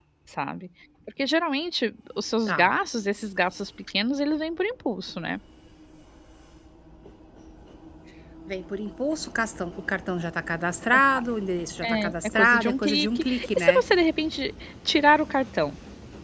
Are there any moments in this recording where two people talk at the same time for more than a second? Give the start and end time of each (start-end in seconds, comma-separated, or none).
11.8-13.8